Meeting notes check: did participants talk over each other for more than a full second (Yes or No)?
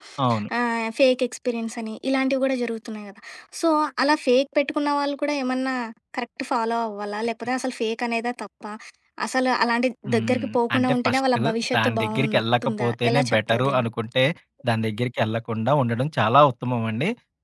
Yes